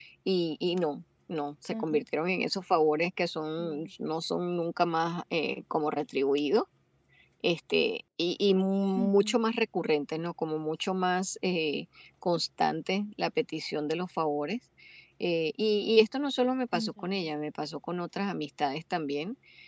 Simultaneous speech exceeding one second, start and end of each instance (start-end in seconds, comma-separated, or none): none